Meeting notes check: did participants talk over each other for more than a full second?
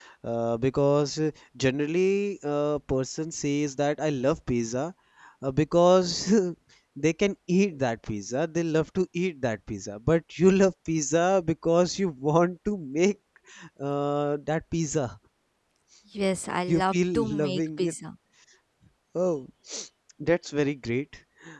Yes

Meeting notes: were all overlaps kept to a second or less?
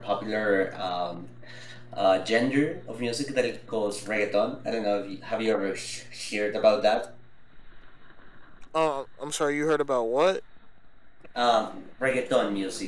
Yes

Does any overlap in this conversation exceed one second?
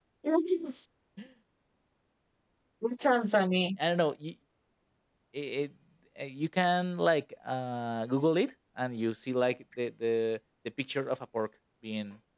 No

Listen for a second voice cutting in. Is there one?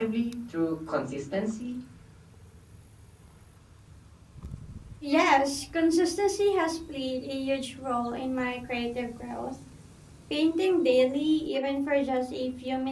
No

